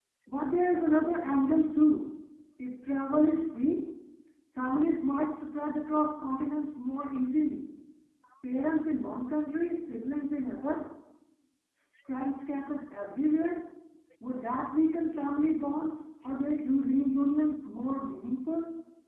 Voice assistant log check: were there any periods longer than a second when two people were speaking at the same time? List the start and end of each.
none

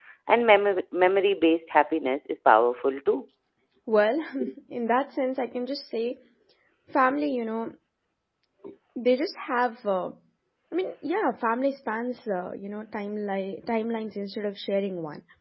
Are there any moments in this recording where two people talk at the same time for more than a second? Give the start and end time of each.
none

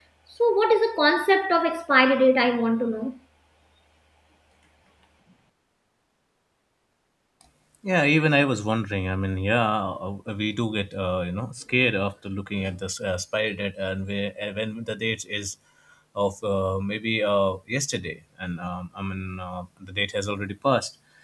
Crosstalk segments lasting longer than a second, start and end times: none

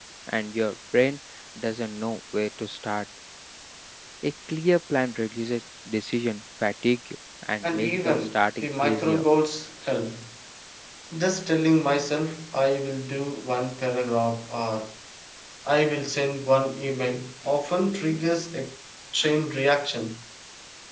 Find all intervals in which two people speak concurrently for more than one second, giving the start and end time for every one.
7.6-9.2

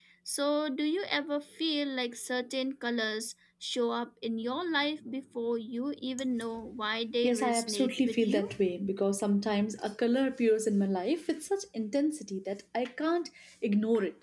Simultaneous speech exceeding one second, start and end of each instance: 7.2-8.5

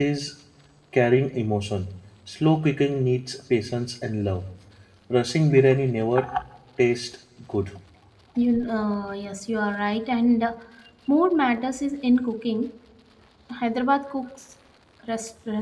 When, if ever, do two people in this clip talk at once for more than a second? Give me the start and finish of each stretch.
none

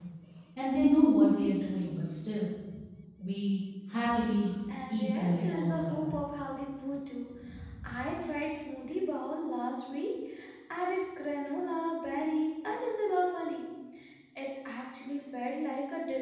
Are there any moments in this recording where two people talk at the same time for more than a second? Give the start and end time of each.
4.9-6.1

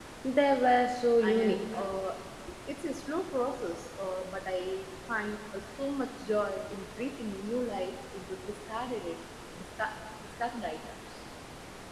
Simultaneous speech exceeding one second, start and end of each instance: none

